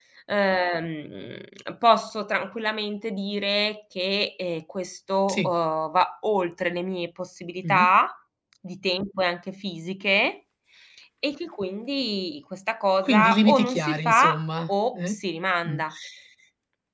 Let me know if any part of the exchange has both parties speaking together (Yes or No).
Yes